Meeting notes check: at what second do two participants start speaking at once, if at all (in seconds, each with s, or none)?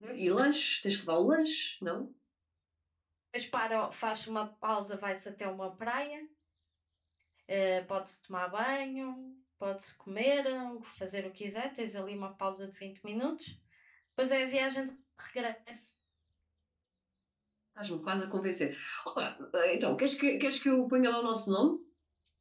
none